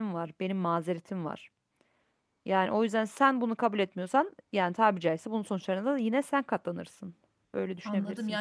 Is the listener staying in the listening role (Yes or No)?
No